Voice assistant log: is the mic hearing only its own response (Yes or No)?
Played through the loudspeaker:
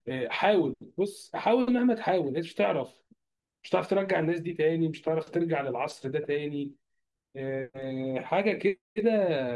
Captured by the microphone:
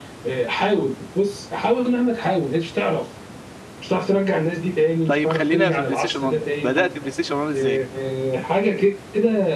No